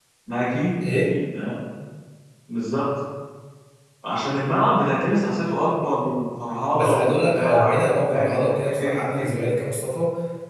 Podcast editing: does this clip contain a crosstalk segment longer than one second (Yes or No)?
Yes